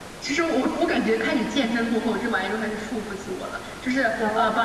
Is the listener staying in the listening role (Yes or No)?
Yes